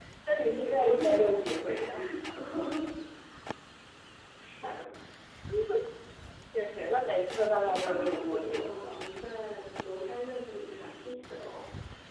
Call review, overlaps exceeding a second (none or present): present